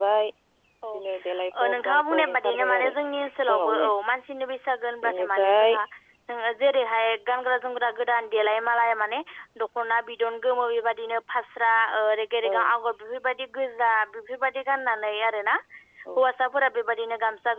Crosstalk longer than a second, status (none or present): present